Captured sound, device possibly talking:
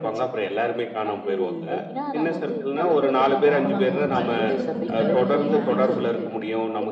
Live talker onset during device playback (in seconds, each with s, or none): 3.5 s